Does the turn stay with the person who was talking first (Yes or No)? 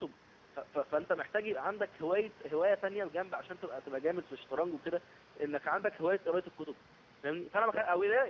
Yes